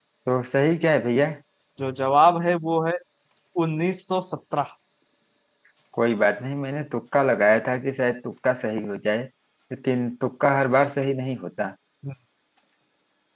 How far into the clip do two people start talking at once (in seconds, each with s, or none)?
none